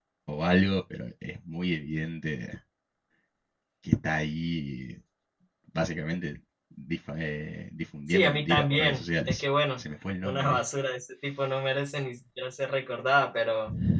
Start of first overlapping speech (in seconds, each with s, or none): 8.1 s